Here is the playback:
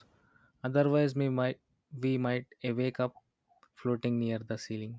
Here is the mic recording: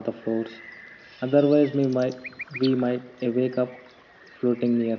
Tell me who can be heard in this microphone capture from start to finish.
echo only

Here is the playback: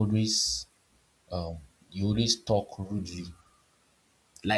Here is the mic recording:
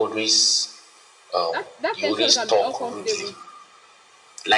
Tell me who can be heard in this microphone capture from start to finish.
both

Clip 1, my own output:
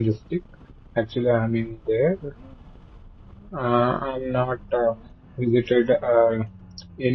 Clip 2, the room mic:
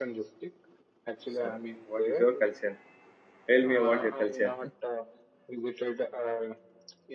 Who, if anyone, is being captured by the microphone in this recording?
both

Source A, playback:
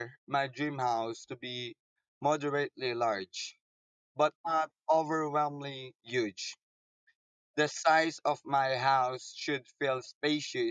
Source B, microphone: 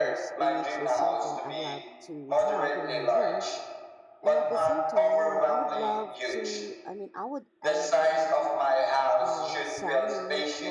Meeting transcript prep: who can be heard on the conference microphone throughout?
both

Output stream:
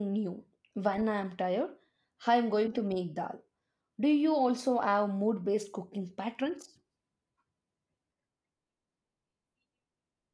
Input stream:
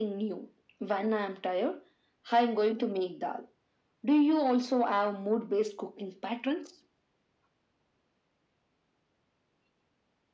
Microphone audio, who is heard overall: echo only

